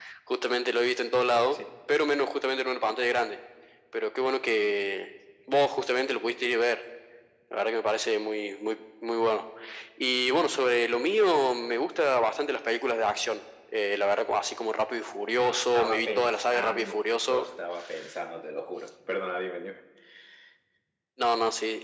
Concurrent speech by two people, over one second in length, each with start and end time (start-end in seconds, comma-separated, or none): 15.4-17.4